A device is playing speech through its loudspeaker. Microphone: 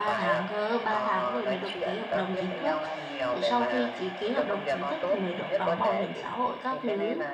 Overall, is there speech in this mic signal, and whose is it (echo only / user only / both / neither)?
both